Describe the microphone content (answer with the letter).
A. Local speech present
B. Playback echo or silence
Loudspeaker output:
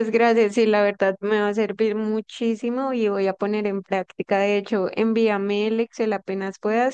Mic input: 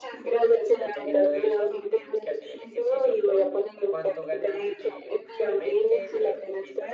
A